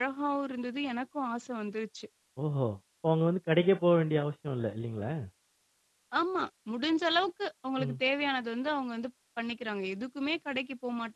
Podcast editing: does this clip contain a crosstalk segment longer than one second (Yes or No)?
No